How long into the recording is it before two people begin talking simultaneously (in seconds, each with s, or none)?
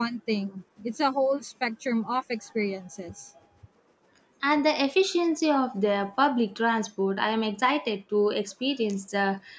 none